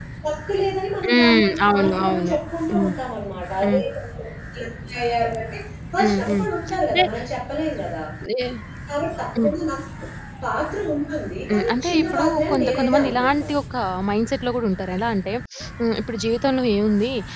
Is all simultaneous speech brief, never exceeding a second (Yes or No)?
No